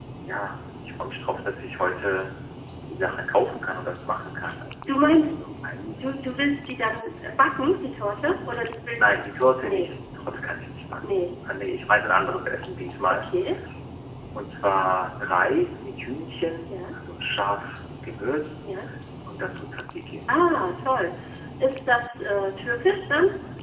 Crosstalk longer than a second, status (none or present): none